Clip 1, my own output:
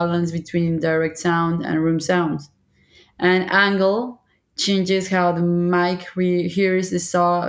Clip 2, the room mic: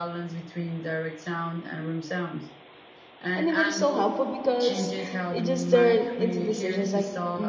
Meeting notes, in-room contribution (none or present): present